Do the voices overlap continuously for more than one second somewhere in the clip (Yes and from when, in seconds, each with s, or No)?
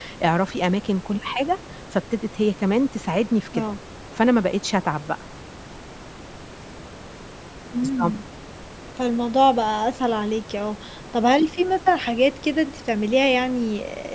No